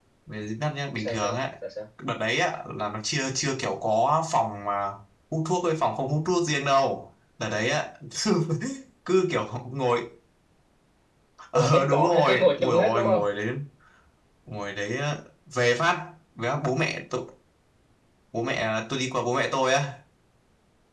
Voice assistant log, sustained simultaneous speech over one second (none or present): present